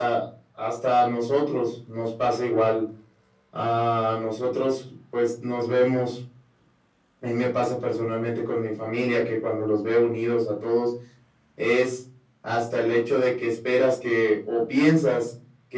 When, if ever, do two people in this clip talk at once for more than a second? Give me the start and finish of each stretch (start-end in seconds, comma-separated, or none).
none